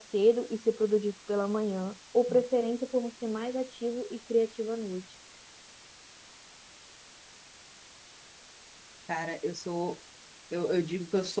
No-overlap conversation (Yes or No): Yes